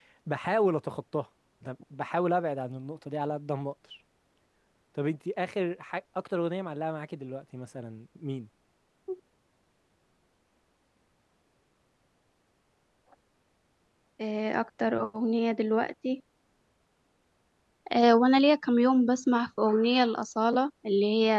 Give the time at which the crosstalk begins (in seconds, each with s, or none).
none